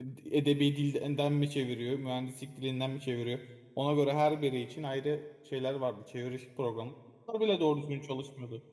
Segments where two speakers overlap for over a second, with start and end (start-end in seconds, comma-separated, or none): none